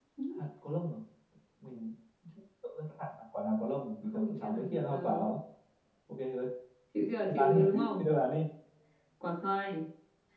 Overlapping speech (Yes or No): Yes